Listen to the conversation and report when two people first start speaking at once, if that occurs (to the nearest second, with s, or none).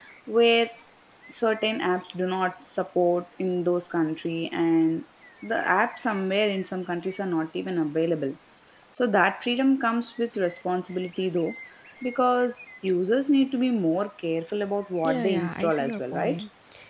15 s